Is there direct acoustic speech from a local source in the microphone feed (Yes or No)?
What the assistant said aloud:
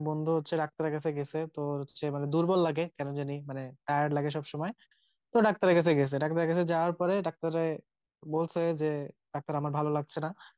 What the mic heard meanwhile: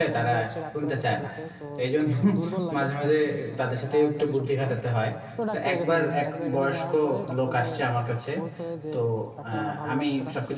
Yes